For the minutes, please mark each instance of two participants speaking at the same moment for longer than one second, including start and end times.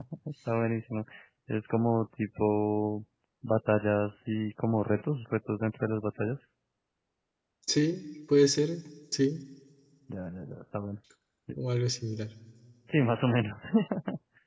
none

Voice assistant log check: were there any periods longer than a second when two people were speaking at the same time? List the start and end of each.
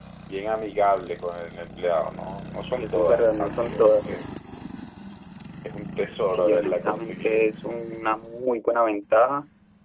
2.8-4.0, 6.2-7.5

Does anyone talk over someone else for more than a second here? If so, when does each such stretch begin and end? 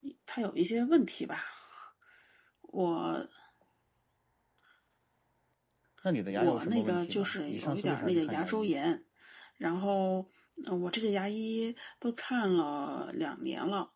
6.3-8.7

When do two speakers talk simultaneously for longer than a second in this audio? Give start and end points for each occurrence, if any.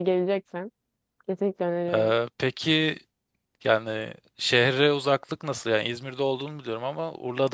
none

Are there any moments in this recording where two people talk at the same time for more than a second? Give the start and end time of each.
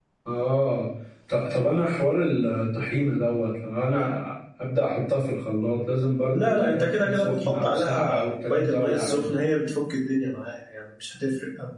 6.3-9.2

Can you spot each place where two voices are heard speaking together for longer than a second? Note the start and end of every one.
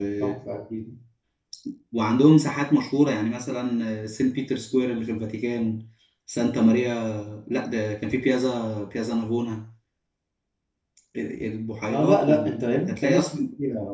11.9-13.3

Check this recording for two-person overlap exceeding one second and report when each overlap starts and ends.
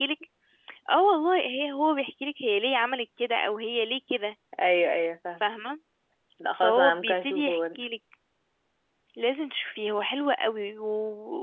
6.6-7.8

